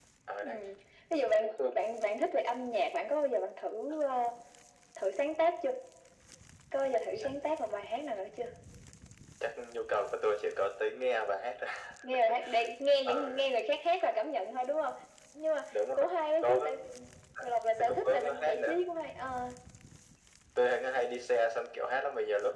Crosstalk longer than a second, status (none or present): present